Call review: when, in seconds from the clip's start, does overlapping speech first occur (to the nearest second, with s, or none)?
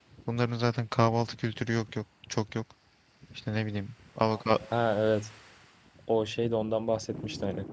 none